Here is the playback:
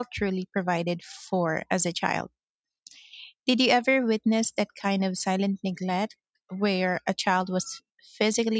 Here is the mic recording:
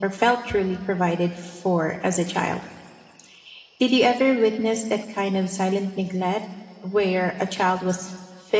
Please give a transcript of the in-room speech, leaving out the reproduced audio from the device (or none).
none